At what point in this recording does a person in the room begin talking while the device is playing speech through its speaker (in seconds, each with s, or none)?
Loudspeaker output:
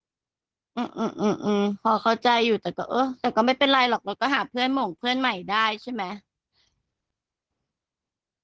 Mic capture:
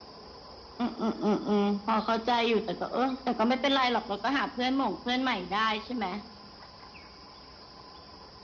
none